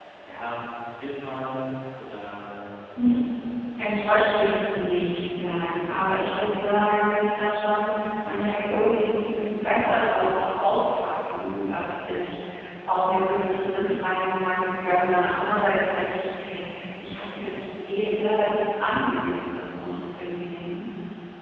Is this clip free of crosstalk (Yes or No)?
No